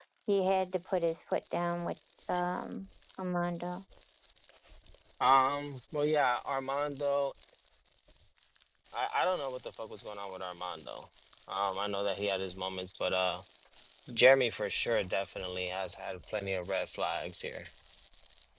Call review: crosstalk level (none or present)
none